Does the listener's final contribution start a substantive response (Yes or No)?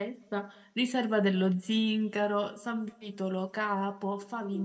Yes